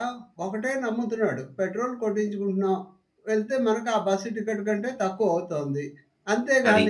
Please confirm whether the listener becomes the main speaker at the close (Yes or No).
No